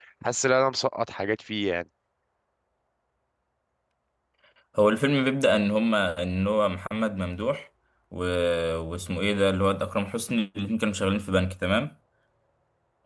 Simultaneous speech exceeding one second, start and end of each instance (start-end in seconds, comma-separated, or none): none